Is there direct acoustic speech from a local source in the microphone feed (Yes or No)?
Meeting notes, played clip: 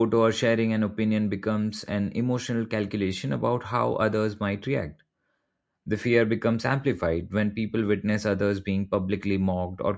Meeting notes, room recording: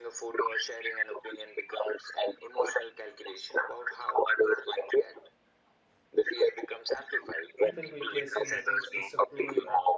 Yes